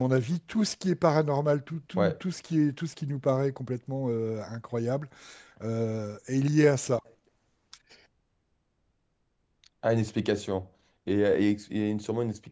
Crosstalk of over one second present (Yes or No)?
No